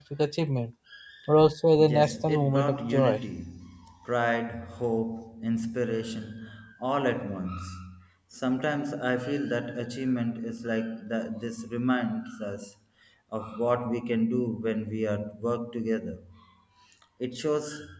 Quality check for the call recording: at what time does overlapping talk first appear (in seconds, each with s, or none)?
1.8 s